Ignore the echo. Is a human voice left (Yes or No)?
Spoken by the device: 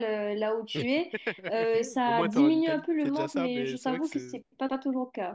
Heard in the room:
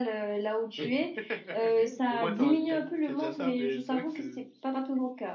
No